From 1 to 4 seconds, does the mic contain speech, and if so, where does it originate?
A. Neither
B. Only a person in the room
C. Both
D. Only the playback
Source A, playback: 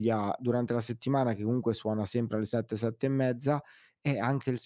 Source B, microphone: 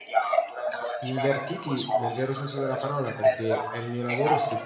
C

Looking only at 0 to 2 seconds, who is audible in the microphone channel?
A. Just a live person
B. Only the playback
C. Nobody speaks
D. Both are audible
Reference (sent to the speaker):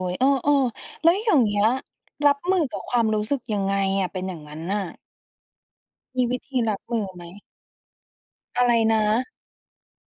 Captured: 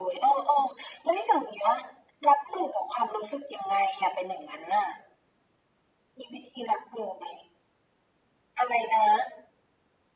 B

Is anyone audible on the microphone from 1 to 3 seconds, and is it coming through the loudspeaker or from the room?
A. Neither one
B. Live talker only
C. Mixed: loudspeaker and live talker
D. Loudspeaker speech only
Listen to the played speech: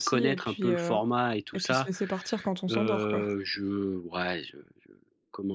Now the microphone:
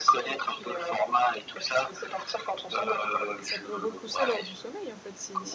D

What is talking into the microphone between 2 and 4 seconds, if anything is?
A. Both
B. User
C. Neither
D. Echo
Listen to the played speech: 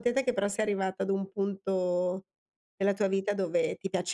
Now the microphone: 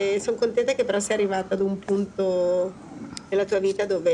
D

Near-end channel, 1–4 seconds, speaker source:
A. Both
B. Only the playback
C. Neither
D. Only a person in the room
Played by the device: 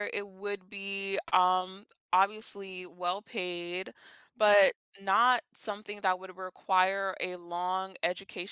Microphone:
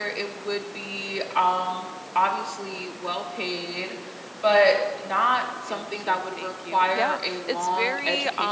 B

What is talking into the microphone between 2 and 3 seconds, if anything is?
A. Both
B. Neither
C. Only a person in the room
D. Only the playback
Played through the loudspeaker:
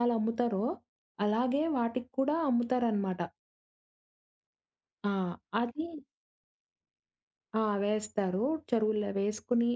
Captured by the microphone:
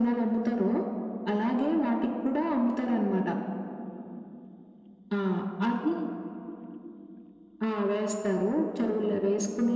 D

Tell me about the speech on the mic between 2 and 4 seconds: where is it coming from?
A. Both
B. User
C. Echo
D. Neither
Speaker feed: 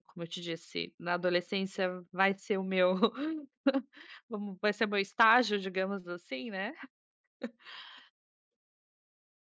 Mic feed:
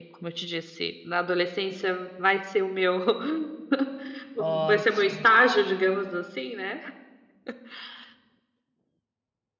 C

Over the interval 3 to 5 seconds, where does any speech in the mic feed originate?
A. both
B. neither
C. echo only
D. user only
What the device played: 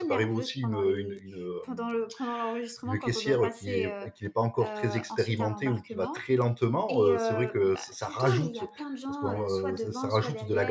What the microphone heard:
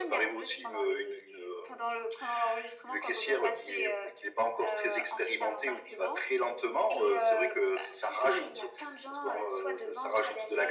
C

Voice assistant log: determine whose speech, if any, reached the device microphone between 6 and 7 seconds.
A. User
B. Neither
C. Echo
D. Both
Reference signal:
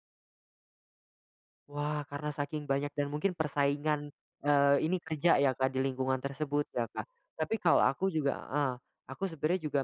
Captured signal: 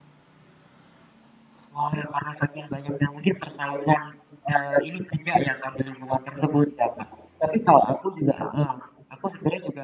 C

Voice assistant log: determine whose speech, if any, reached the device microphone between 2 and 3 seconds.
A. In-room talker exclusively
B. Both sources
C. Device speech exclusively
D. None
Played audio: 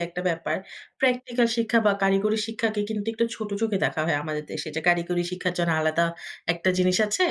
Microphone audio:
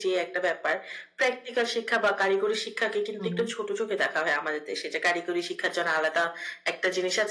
C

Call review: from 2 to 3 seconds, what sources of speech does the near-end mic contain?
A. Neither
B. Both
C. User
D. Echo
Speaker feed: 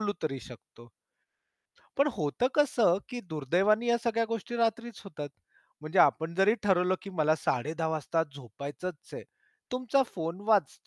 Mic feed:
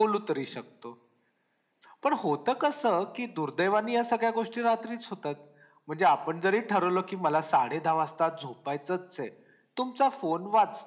D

